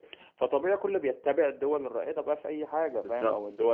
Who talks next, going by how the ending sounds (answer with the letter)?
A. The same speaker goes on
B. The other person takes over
A